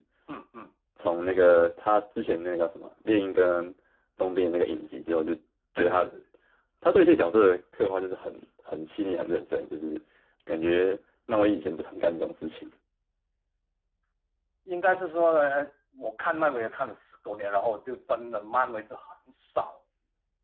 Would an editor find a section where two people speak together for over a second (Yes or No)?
No